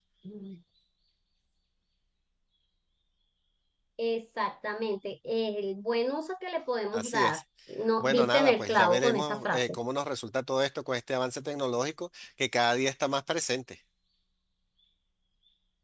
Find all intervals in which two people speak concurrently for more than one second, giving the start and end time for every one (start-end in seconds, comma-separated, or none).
8.0-9.6